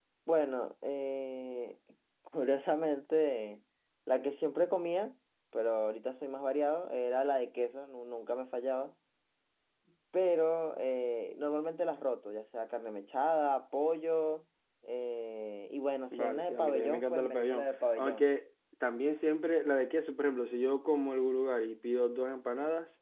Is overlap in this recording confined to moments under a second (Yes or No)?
No